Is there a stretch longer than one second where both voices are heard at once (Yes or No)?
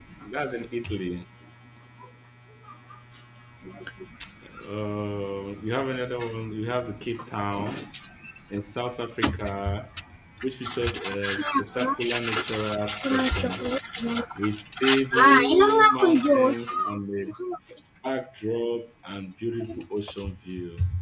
Yes